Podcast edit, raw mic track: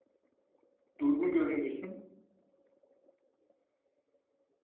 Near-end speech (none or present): present